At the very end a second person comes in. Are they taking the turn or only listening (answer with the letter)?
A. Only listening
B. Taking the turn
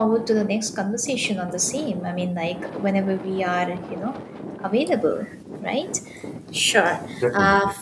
A